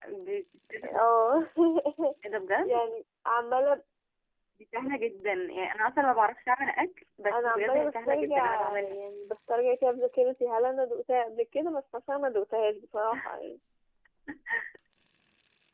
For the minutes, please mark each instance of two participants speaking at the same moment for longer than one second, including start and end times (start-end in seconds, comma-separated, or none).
7.3-9.0